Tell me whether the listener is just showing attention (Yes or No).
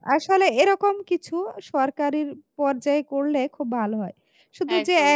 Yes